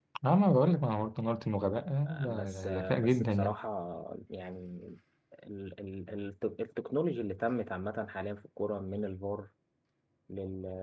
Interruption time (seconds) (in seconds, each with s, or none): 2.1 s